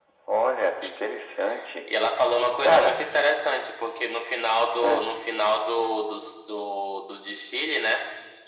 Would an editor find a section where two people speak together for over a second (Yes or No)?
No